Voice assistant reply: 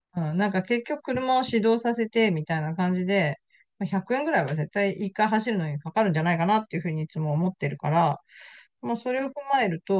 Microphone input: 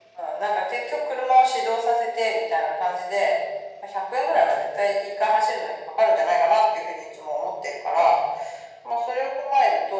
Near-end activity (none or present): none